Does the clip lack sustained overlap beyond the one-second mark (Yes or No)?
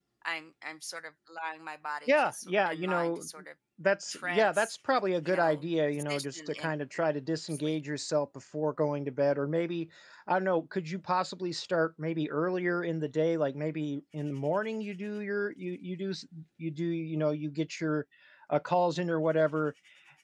No